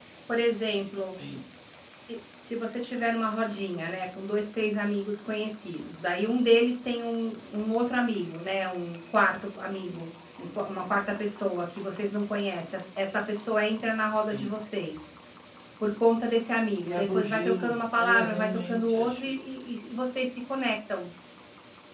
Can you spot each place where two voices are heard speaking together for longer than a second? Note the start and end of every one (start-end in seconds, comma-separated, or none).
16.8-19.3